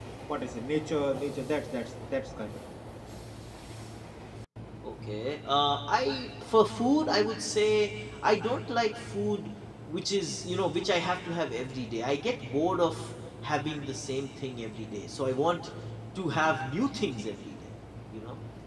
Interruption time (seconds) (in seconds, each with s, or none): none